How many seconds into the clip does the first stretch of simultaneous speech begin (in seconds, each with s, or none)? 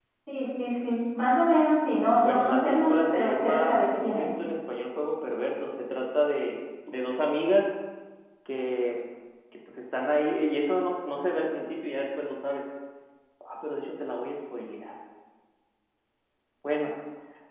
2.2 s